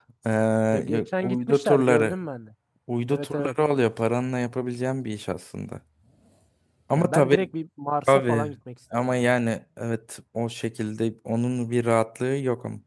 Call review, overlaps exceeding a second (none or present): present